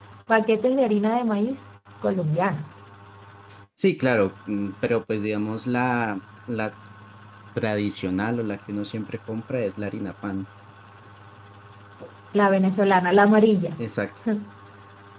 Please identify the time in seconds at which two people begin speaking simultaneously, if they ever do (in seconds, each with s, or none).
none